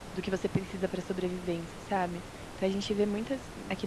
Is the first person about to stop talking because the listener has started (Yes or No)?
No